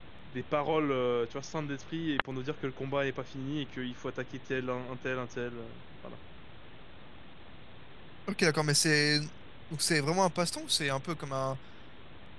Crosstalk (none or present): none